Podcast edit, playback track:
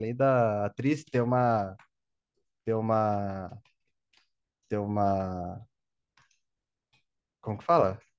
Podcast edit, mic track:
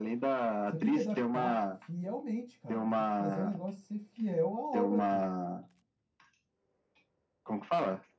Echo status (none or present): present